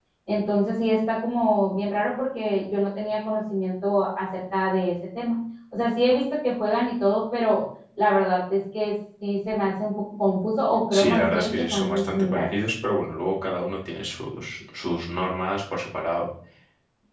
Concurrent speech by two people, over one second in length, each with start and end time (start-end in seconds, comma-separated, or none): 10.9-12.5